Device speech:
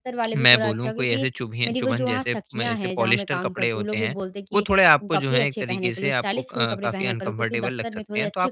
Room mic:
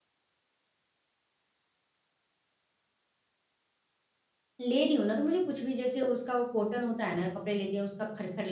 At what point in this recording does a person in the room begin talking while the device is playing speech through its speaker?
4.6 s

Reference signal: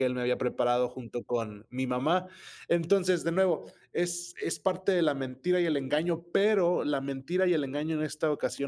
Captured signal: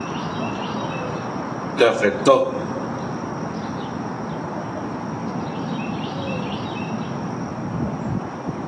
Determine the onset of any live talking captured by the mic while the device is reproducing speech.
1.8 s

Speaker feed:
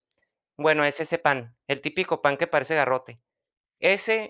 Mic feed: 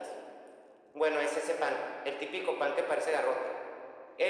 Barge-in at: none

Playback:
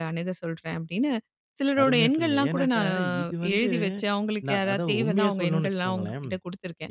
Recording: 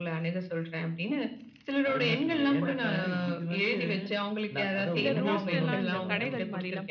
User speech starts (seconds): 5.0 s

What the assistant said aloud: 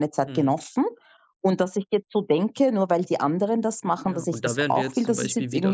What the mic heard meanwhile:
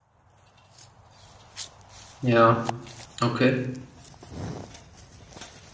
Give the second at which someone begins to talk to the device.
2.2 s

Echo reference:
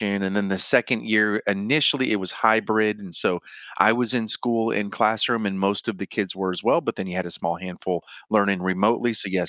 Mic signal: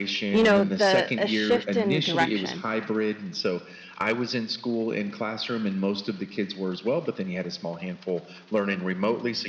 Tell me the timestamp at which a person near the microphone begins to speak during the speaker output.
0.3 s

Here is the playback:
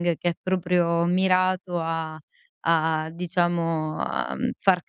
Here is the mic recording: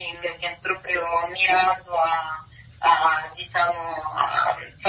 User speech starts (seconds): none

